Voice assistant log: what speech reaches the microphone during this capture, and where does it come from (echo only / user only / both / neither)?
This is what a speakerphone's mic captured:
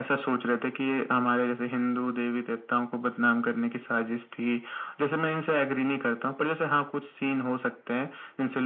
echo only